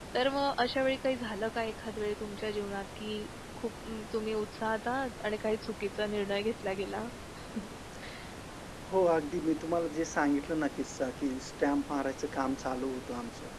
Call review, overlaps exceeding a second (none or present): none